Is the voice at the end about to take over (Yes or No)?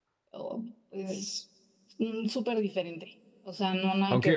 Yes